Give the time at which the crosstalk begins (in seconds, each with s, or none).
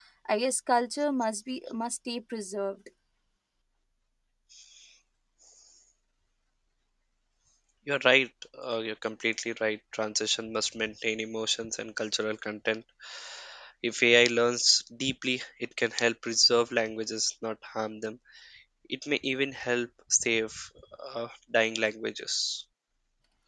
none